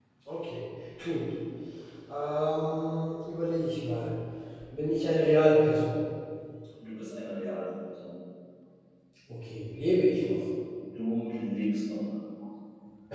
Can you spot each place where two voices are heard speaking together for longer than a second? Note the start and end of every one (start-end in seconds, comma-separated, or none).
none